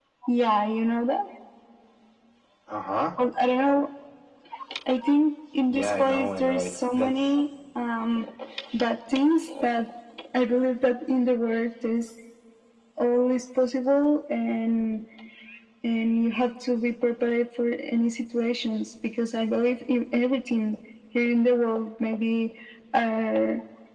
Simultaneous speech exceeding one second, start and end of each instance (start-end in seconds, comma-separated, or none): 5.7-7.4